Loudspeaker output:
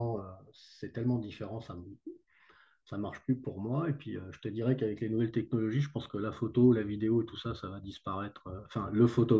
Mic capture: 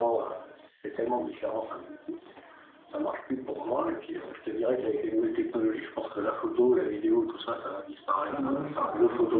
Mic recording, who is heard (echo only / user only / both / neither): both